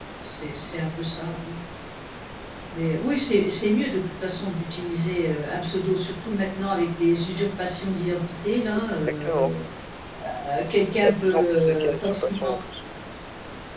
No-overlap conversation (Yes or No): No